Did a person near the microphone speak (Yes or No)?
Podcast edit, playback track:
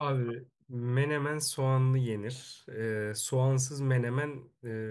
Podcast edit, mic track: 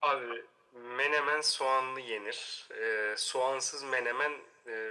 No